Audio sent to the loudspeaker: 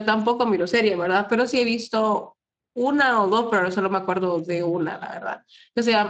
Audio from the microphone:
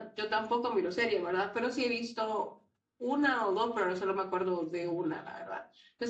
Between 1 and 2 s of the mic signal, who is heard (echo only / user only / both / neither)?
echo only